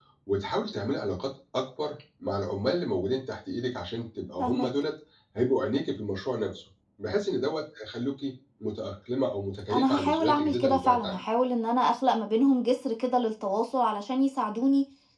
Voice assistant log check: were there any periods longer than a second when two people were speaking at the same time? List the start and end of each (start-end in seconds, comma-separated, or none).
9.7-11.2